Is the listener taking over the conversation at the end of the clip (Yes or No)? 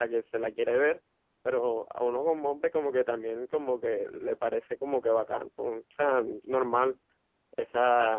Yes